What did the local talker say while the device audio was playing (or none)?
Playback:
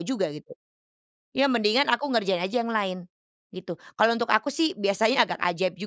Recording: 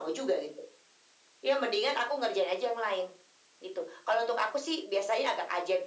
none